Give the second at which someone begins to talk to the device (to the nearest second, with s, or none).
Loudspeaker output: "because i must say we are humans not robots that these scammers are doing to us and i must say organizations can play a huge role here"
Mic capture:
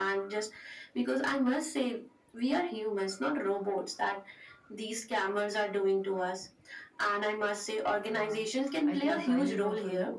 8 s